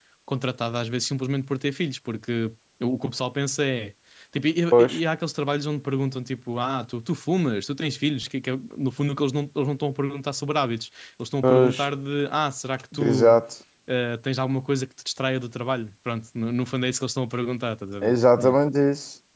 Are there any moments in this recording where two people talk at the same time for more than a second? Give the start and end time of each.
none

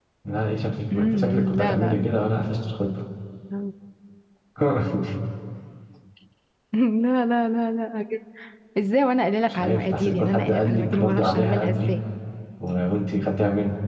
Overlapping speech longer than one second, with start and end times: 0.9-2.2, 9.5-12.0

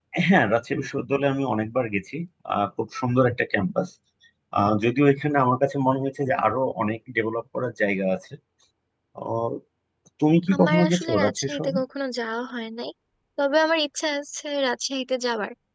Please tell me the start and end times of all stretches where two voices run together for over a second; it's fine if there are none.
10.5-11.8

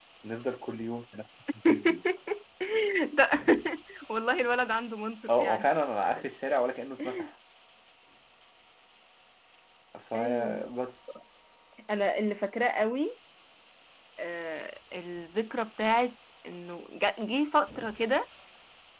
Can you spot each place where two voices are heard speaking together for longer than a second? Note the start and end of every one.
none

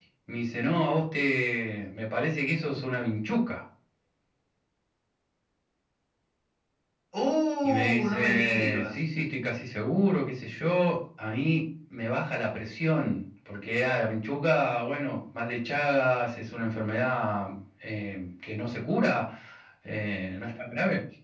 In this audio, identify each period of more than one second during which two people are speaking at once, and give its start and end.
7.6-9.0

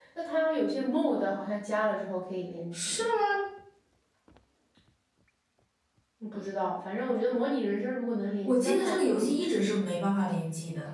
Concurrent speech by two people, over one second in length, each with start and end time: 8.4-9.7

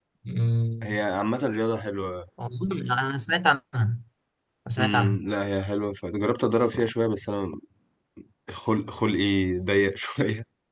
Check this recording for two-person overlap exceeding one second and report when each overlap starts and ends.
none

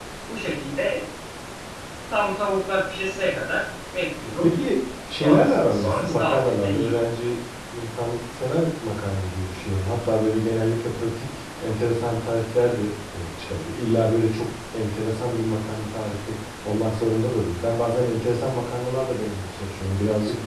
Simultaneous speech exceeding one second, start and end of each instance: 5.2-6.9

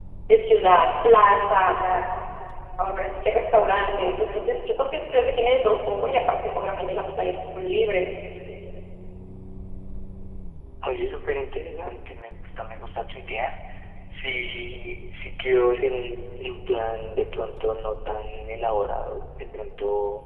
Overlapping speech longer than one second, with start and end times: none

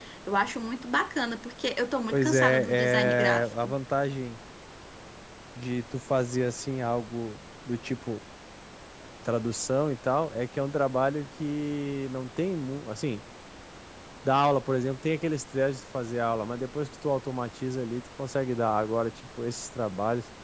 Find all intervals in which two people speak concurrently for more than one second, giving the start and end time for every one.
2.1-3.7

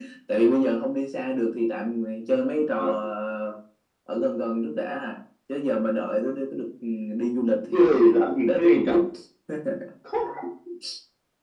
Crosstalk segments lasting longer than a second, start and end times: 7.7-8.9

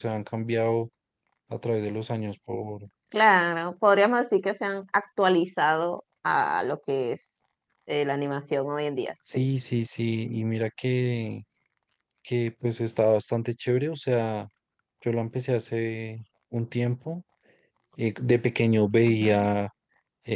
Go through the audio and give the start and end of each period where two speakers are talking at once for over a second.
none

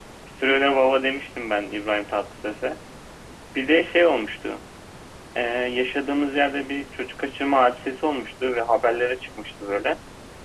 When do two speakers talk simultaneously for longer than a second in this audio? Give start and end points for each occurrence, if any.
none

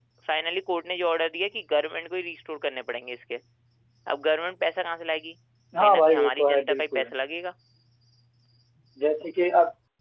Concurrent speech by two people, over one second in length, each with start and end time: 5.8-7.0

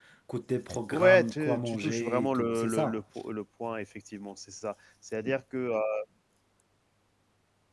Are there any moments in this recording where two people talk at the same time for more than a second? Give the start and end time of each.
0.9-3.0

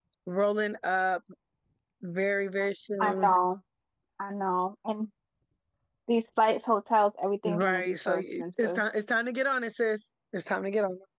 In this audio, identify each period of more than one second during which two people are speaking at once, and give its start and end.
7.4-8.8

